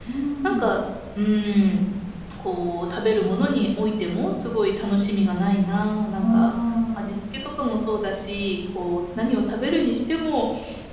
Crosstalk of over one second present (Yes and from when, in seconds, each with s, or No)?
No